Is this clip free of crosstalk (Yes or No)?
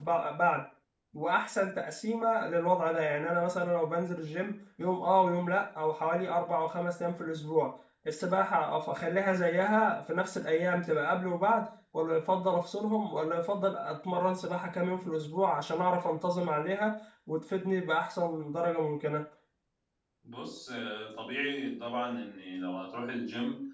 Yes